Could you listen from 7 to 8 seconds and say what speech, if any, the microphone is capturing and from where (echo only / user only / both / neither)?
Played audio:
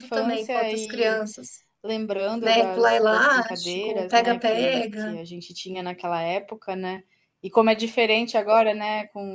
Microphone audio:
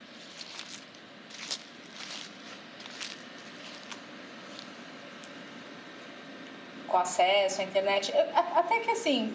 user only